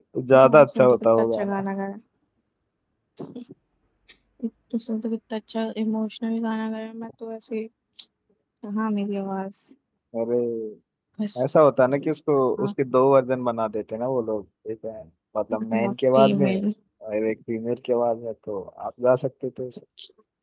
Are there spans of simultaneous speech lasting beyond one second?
Yes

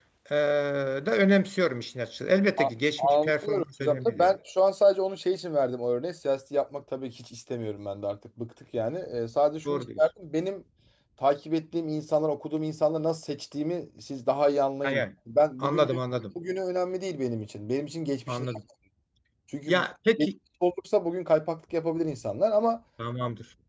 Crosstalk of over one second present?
Yes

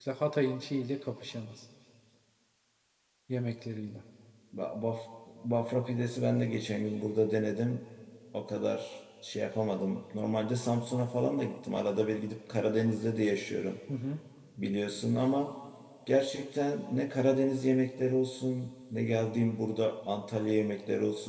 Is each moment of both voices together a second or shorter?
Yes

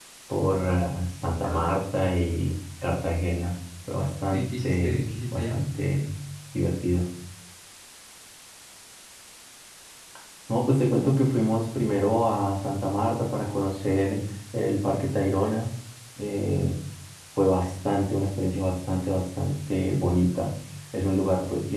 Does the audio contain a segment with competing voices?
Yes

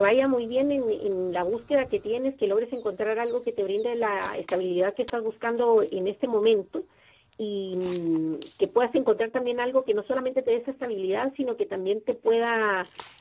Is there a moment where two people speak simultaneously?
No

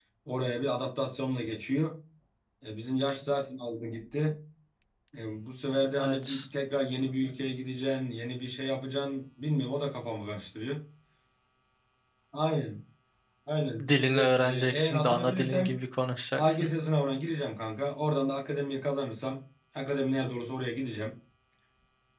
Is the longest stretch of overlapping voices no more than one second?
No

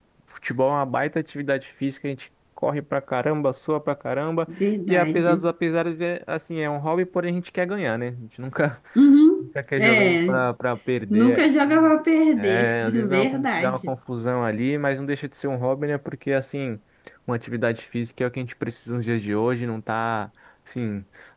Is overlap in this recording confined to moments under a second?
No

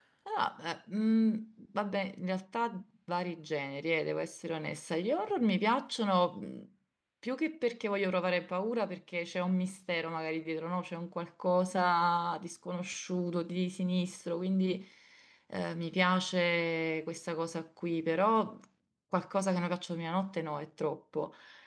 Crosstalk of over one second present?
No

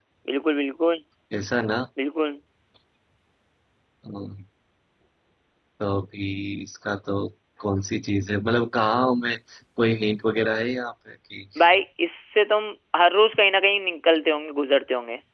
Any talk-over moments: No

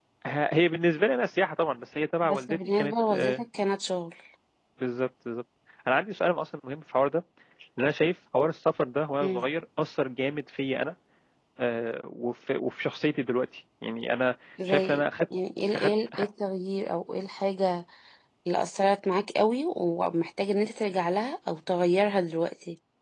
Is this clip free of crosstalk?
No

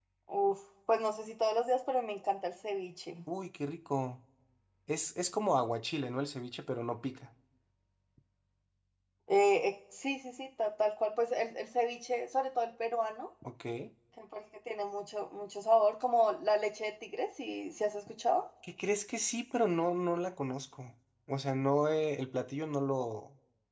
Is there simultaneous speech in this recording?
No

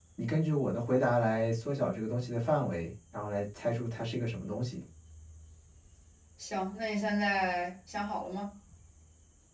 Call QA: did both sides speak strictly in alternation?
Yes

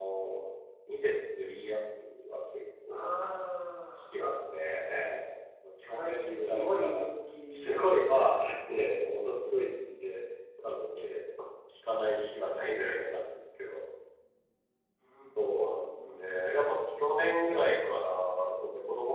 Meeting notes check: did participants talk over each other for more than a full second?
Yes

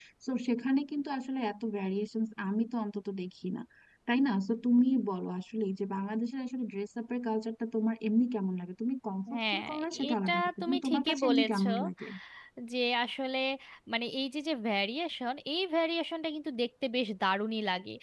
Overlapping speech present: Yes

